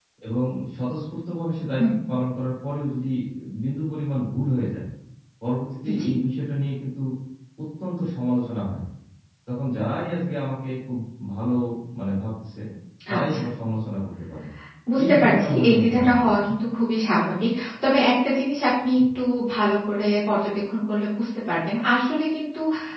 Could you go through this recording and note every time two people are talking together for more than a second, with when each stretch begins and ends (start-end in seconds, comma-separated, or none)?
15.0-16.6